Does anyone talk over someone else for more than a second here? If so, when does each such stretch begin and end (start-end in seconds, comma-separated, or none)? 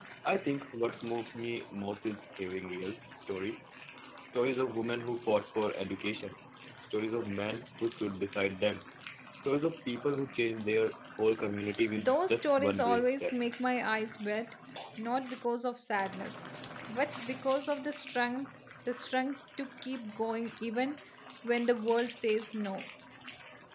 12.0-13.4